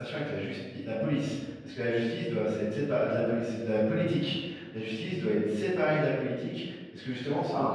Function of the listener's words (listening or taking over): listening